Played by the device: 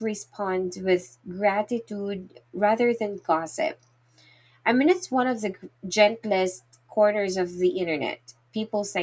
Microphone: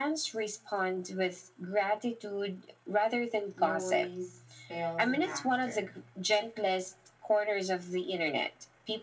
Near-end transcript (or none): noise, spills, and laughter.